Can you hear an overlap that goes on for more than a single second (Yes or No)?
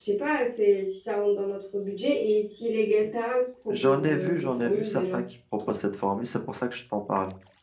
Yes